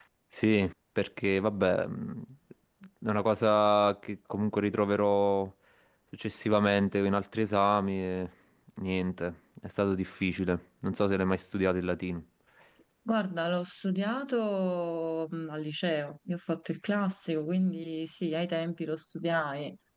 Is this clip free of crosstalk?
Yes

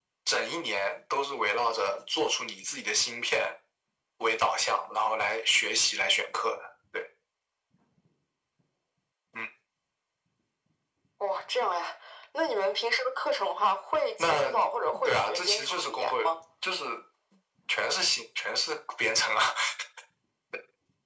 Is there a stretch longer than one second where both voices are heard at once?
Yes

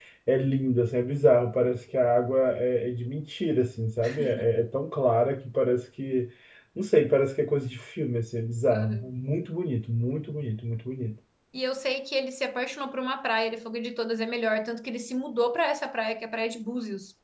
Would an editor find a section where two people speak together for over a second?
No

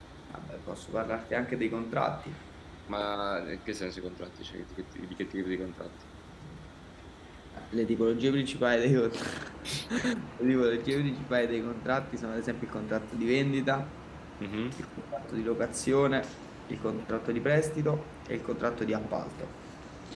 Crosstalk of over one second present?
No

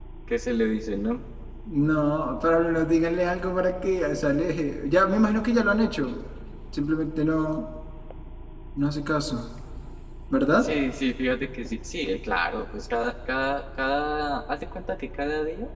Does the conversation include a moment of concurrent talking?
No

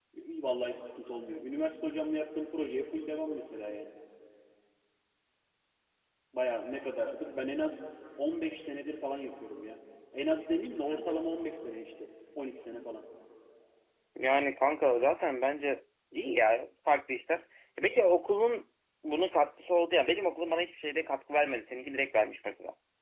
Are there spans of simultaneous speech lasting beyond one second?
No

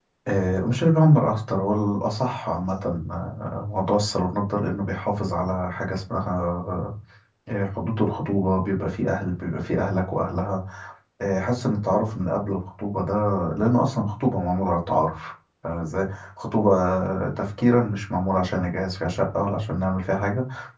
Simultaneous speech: No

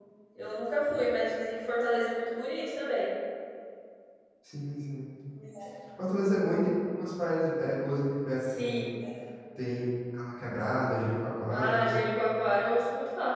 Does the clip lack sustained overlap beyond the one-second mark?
Yes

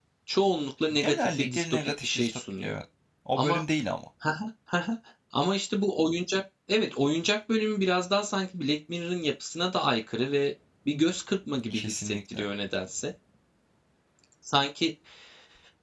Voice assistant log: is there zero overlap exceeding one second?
No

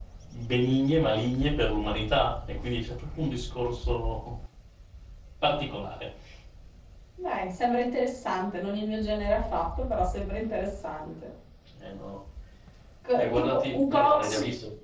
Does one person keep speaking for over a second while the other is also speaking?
Yes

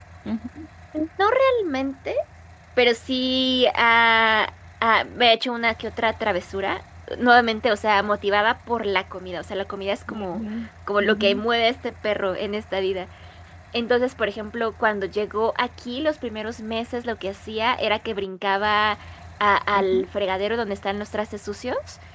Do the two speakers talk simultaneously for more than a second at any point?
No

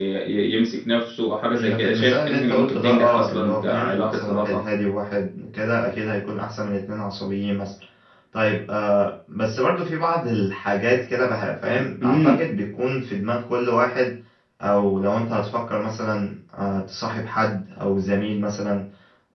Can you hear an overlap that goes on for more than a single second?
Yes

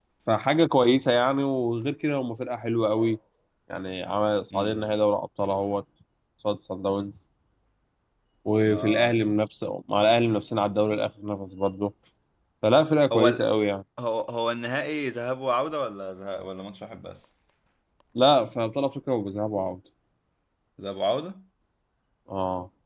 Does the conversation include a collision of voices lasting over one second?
No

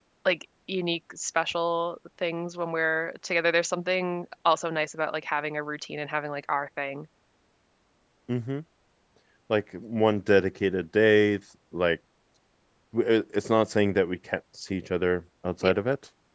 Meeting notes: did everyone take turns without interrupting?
Yes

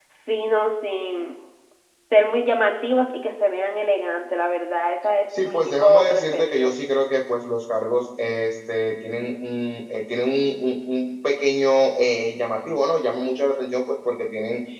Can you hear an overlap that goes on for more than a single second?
Yes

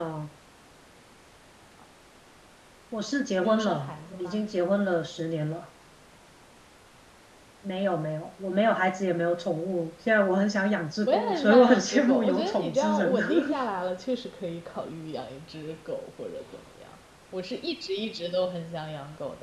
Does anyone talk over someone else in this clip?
Yes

